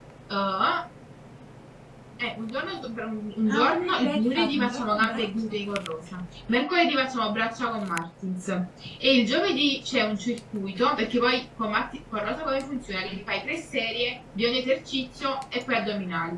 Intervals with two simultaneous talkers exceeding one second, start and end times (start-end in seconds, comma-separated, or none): 3.5-5.3